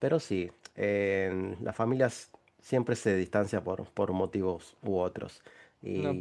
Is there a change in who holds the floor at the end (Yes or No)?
Yes